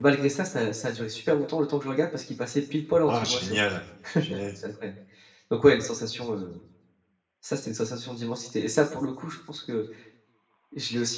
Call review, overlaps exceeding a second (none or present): none